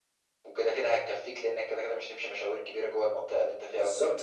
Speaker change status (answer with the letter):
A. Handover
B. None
A